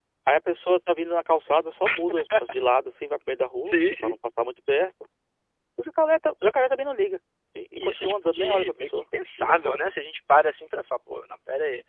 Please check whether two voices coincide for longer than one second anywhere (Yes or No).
Yes